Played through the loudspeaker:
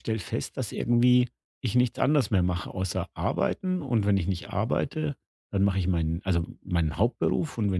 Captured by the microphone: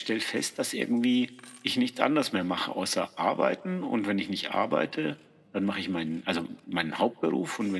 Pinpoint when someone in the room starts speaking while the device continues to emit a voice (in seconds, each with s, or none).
none